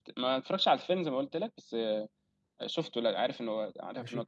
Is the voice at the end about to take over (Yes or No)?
Yes